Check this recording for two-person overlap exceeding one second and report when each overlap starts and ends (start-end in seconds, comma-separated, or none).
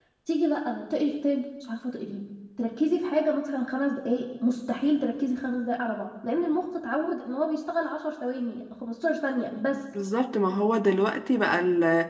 none